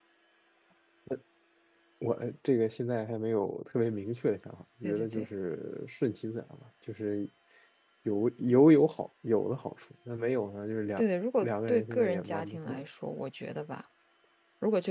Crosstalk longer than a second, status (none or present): present